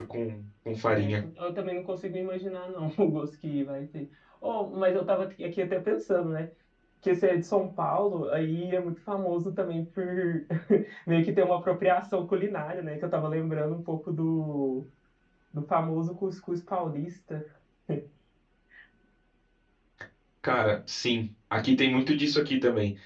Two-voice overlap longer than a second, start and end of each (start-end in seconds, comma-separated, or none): none